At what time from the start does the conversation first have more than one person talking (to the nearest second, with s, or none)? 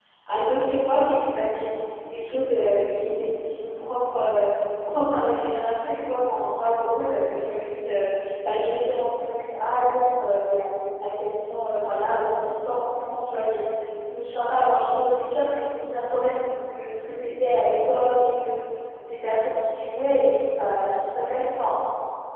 none